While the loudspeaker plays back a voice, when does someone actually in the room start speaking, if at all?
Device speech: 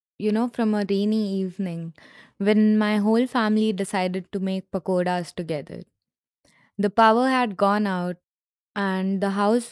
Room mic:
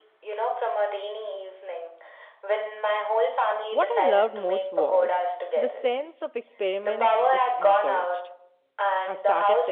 3.7 s

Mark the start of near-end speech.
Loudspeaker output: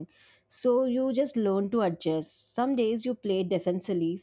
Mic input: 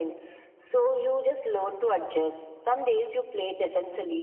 none

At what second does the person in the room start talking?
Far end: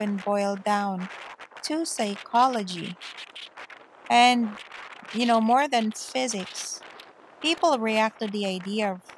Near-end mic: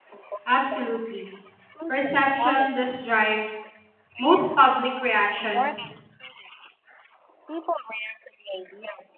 0.4 s

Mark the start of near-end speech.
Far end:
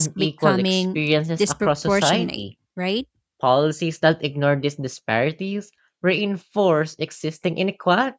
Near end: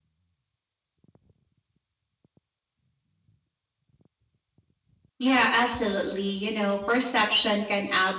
5.2 s

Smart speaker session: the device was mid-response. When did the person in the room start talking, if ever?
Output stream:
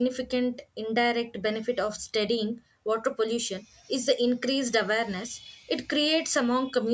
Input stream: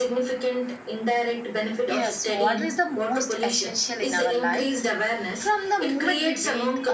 1.9 s

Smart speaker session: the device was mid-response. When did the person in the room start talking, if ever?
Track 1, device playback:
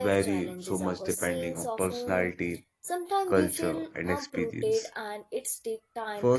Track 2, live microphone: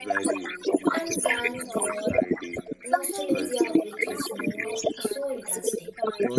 0.9 s

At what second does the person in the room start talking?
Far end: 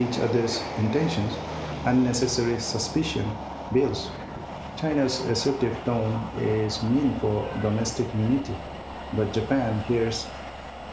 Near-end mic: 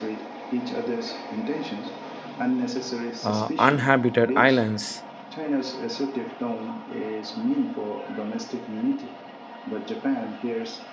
3.2 s

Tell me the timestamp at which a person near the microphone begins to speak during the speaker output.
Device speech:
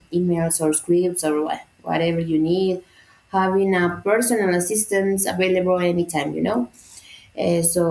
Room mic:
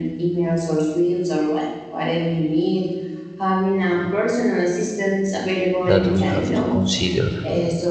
5.9 s

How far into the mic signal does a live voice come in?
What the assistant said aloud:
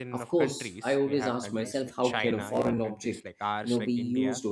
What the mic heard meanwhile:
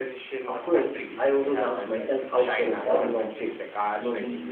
none

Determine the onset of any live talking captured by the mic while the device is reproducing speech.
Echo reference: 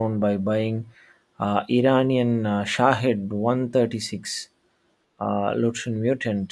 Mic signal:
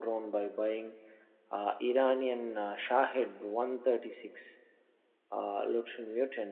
none

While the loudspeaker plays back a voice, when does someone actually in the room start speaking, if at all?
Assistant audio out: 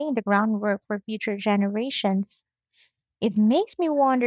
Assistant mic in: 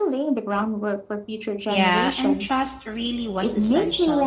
1.6 s

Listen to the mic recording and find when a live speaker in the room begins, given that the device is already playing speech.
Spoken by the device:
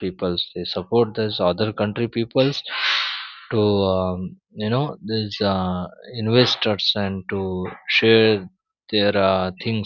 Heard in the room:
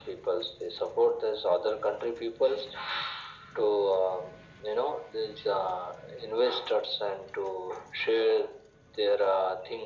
none

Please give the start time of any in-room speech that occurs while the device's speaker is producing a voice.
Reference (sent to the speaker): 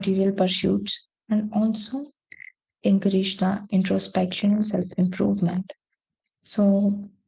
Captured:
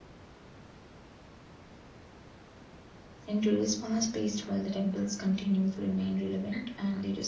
3.3 s

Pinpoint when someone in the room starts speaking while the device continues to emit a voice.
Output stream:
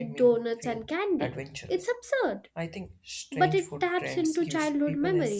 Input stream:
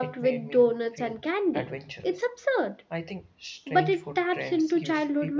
none

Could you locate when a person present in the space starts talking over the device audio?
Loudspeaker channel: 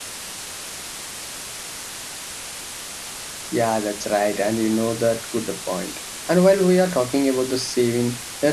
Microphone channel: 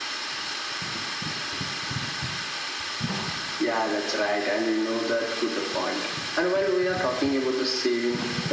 none

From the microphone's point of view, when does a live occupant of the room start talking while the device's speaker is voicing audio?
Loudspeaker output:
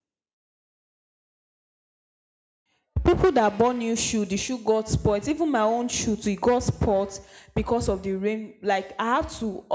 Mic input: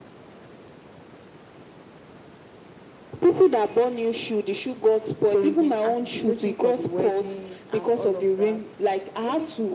5.2 s

